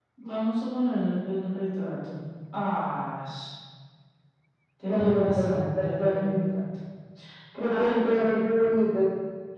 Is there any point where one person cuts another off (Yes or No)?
Yes